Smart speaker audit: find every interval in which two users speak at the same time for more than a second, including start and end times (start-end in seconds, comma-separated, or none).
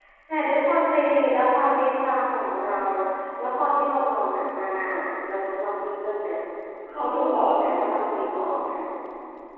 6.9-8.5